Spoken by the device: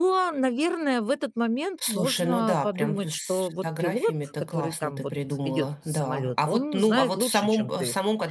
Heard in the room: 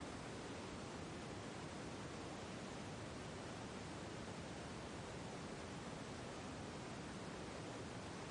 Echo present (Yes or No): No